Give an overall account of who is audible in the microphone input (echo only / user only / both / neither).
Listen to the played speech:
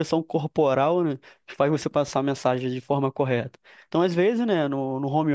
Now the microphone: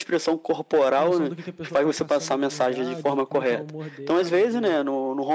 both